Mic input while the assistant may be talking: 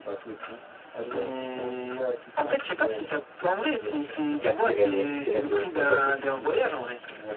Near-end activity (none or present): present